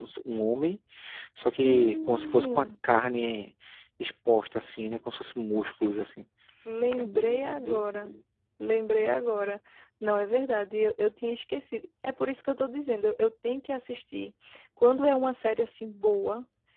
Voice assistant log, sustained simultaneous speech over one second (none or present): present